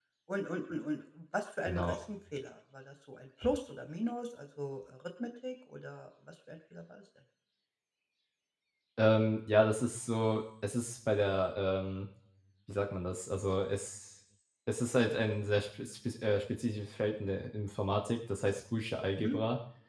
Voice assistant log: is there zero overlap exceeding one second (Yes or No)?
Yes